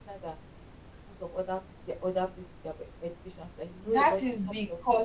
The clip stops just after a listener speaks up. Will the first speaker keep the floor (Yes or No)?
No